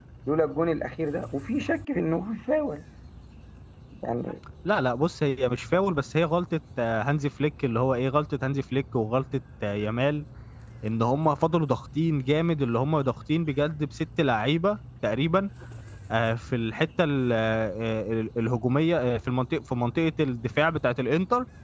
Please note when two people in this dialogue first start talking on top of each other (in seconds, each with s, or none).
none